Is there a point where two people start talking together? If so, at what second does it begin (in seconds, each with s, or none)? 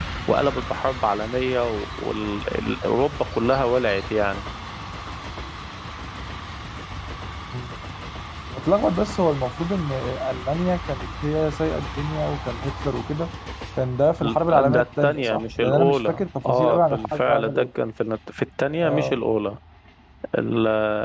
14.2 s